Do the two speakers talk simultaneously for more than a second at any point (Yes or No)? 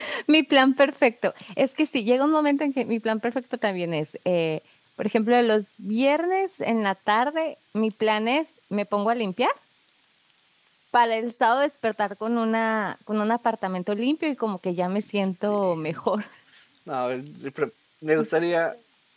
No